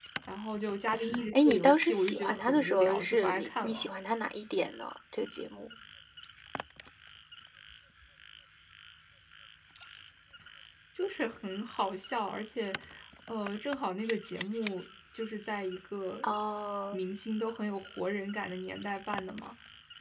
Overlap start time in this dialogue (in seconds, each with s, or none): 1.3 s